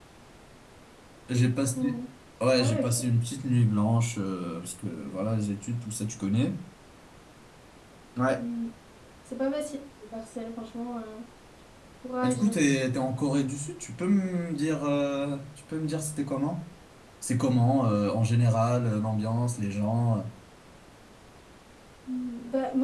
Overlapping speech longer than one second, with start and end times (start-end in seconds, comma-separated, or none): none